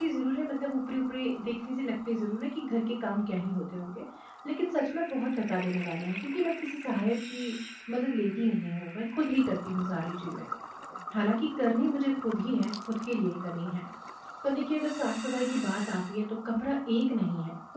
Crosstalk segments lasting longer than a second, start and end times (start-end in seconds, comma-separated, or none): none